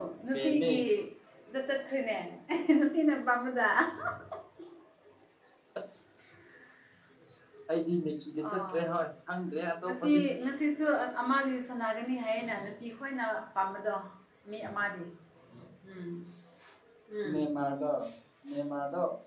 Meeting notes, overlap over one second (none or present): none